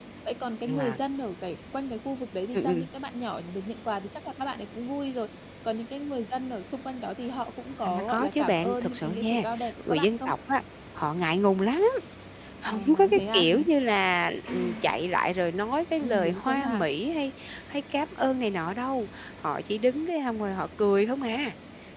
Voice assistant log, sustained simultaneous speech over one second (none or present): present